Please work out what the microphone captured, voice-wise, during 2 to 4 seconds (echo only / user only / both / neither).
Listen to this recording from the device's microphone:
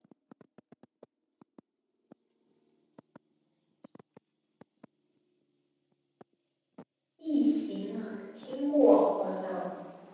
neither